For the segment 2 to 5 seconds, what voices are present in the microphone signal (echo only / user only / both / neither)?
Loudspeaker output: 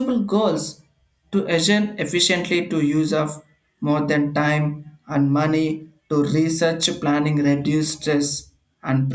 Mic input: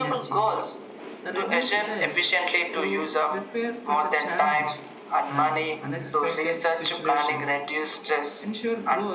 both